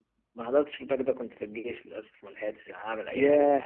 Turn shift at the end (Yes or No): Yes